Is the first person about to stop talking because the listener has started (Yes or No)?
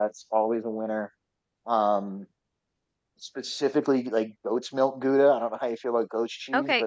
Yes